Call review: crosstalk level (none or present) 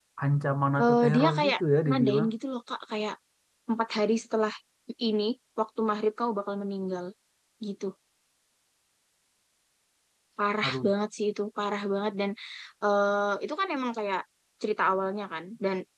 present